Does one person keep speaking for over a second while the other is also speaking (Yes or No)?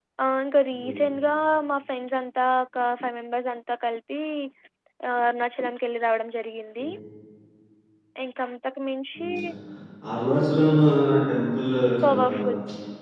No